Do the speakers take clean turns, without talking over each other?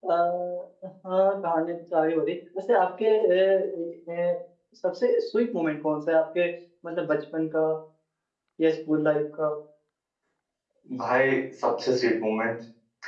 Yes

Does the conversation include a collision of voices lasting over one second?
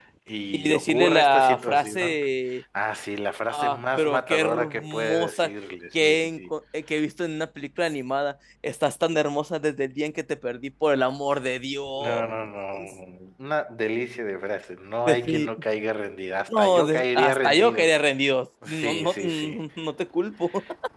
Yes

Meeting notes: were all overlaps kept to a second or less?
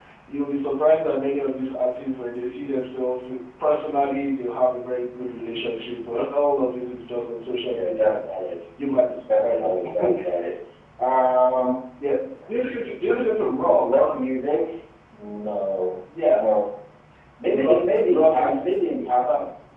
No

